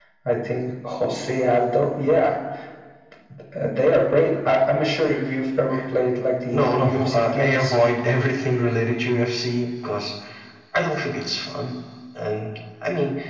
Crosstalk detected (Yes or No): Yes